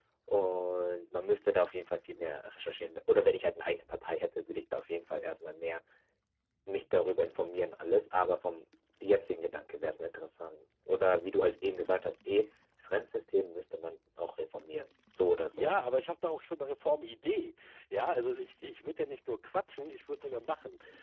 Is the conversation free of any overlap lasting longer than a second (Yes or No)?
Yes